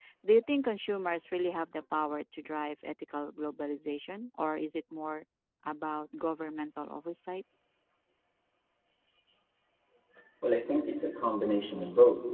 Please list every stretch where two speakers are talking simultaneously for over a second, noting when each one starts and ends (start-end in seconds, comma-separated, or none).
none